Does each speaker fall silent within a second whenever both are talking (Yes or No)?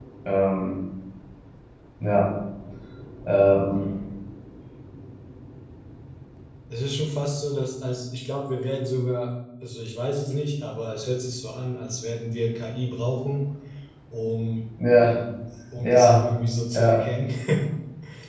Yes